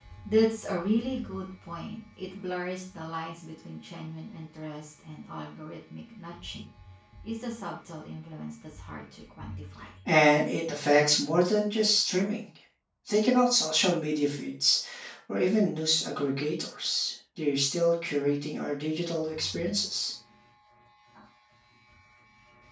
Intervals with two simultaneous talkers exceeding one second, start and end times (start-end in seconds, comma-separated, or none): none